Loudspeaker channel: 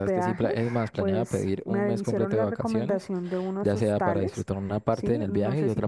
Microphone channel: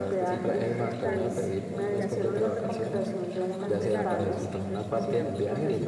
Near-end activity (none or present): present